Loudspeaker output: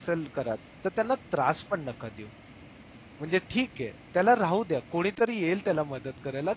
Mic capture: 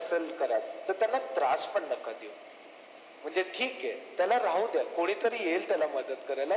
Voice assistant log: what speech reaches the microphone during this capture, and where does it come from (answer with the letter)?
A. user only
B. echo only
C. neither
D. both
B